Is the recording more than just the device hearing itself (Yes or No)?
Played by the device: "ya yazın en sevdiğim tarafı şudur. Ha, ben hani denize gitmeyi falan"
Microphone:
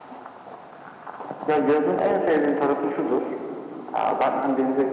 No